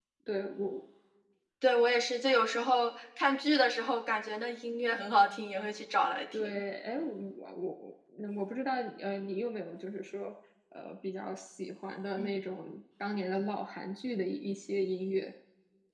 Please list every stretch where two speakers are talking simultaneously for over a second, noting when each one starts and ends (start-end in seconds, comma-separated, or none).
none